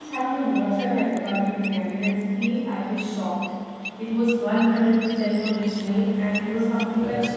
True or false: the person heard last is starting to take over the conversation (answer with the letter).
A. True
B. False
B